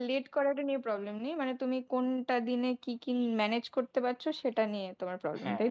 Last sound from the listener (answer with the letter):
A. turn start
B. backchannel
A